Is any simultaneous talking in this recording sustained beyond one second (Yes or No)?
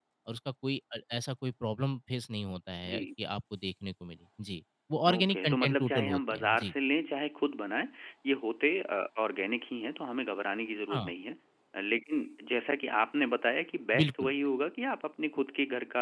Yes